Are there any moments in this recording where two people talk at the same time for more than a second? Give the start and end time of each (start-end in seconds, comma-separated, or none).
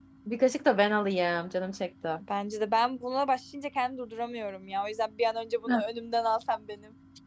none